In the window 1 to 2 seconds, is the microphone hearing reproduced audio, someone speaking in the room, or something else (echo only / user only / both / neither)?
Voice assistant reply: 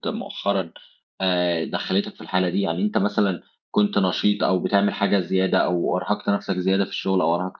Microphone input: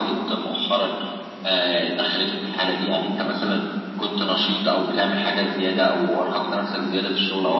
echo only